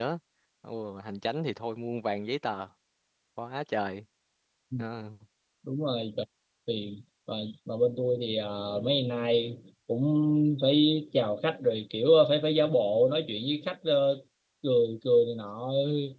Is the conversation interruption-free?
Yes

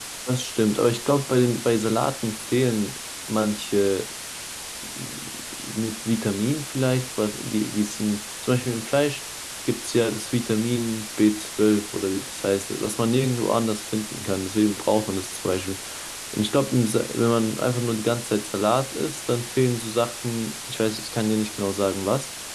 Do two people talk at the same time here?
No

